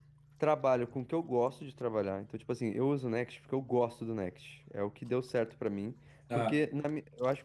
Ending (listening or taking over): listening